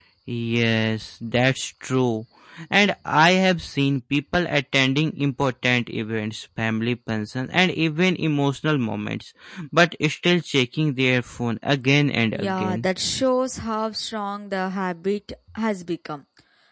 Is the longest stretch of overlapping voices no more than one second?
Yes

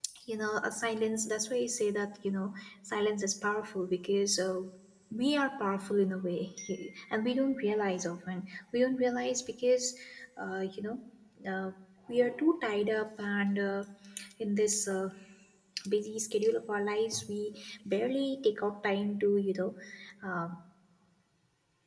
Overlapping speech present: No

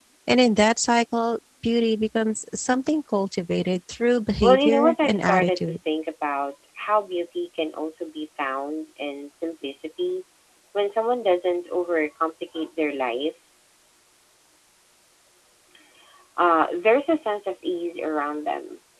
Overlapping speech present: Yes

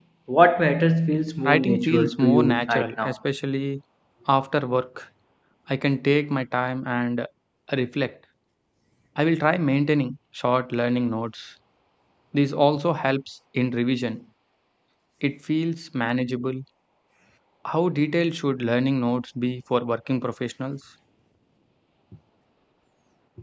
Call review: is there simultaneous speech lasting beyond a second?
Yes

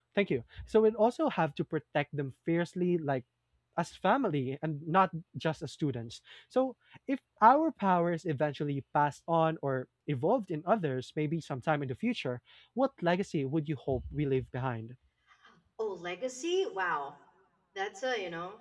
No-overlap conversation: Yes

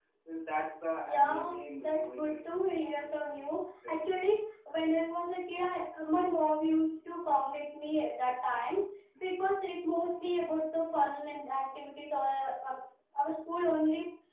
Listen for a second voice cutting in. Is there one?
Yes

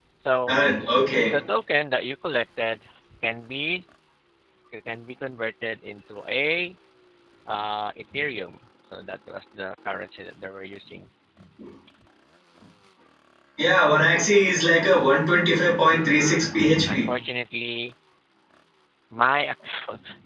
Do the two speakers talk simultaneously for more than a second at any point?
No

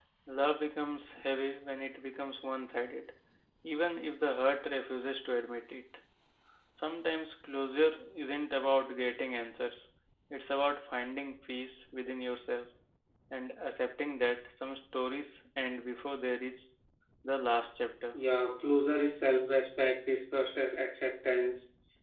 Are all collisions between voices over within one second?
Yes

